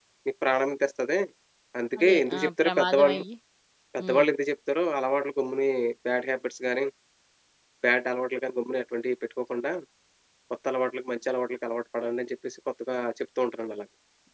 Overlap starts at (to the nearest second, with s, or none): 2 s